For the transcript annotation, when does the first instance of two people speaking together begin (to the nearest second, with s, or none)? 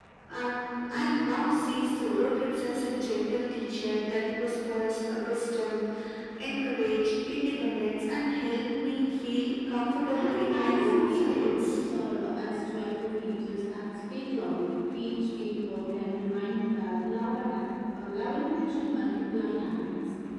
10 s